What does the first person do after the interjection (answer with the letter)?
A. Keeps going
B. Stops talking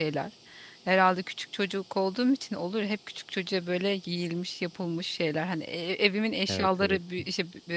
A